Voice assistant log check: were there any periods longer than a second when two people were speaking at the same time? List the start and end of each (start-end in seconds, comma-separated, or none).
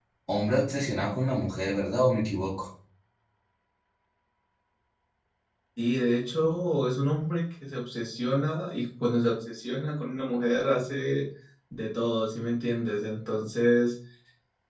none